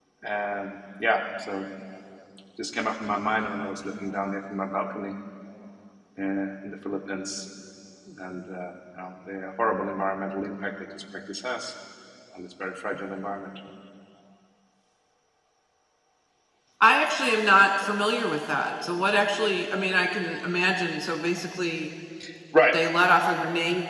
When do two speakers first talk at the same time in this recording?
none

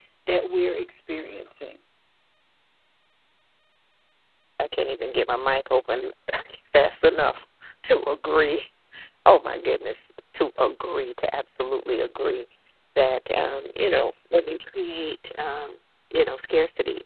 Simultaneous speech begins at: none

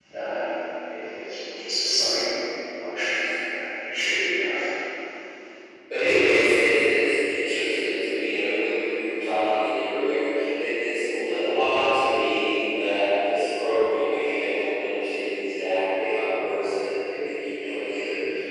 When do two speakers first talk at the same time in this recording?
none

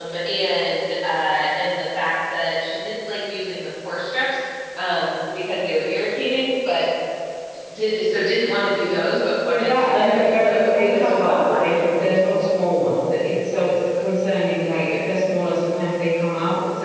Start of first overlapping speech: 9.5 s

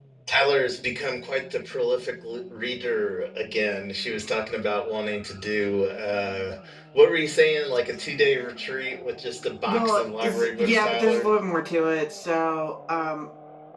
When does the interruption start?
9.7 s

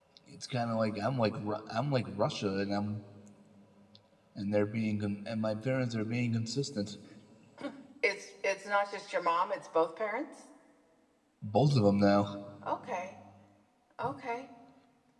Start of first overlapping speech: none

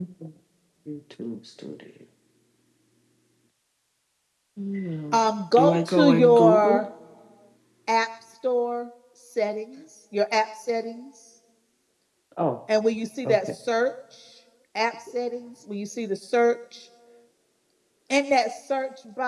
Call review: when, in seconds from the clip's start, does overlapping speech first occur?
5.6 s

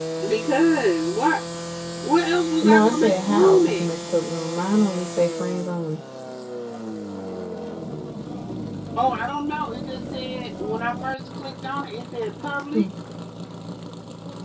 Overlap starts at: 2.6 s

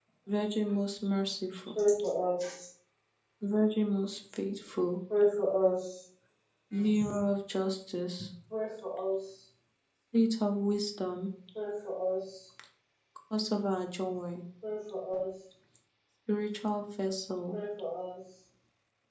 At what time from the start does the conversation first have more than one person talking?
none

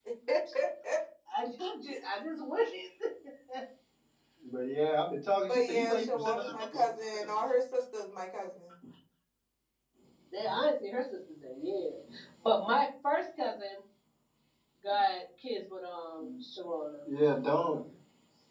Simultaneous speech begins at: 5.5 s

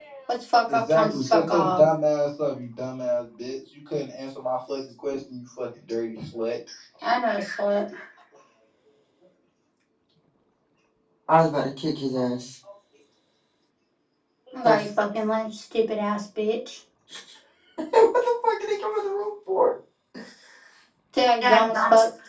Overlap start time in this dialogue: 0.7 s

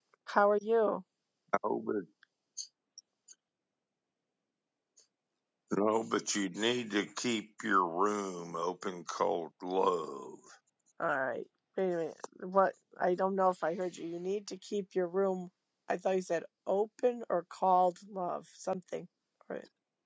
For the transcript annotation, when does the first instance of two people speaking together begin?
none

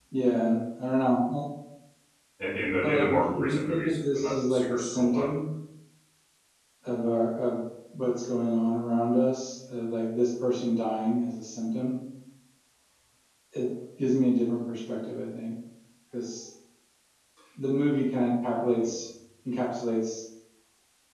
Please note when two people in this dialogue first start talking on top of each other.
2.8 s

